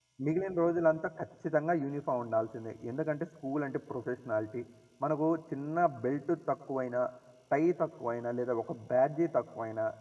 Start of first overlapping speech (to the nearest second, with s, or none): none